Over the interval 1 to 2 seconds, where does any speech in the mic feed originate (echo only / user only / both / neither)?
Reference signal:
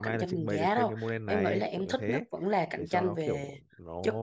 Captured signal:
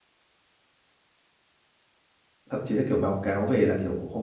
neither